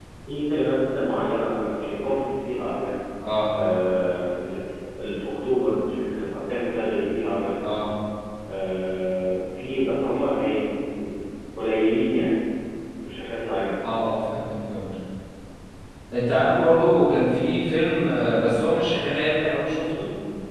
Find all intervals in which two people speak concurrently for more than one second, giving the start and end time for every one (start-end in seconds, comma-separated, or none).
none